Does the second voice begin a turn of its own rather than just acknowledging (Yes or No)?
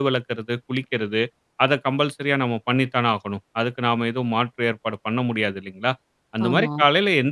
No